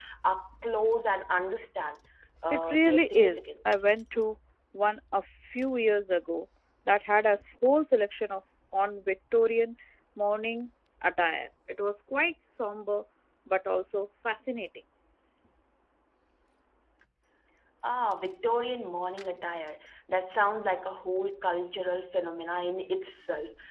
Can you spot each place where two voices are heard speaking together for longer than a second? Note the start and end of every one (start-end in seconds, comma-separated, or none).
2.5-3.9